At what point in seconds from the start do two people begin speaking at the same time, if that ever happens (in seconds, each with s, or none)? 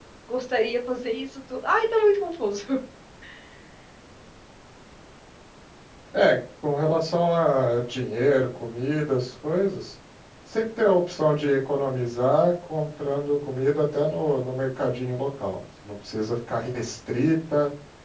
none